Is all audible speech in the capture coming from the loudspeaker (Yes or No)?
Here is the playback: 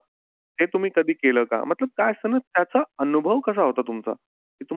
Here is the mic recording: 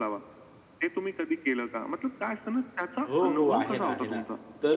No